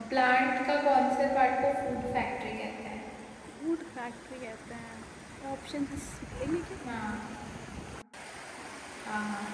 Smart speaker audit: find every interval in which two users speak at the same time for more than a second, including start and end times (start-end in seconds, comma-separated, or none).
none